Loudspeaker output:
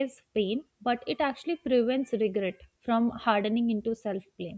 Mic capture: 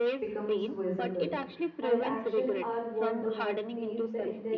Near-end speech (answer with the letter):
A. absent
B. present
B